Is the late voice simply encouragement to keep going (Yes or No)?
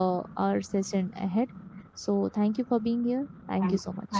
No